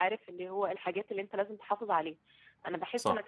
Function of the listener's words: listening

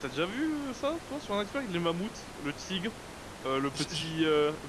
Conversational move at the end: listening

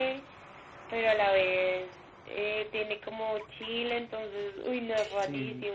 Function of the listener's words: taking over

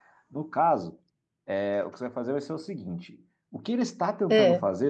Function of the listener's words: listening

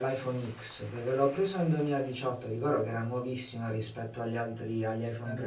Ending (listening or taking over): listening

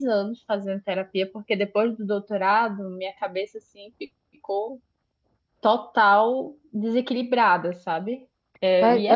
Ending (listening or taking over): taking over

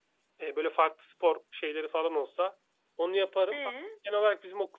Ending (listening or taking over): listening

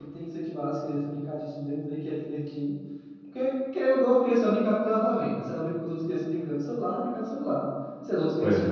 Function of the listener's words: listening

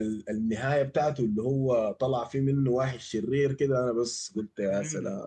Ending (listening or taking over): taking over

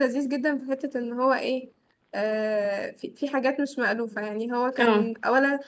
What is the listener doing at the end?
listening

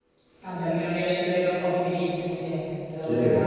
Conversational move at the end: taking over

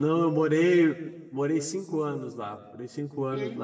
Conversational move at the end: listening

